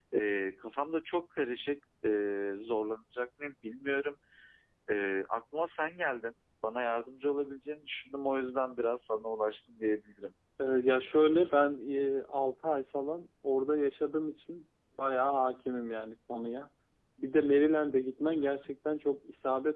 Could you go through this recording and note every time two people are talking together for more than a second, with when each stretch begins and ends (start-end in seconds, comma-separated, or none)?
none